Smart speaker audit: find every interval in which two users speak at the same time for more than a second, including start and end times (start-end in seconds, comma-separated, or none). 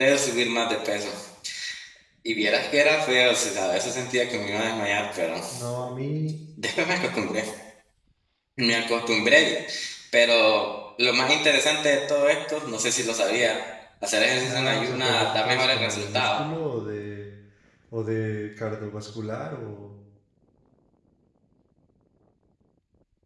14.4-16.4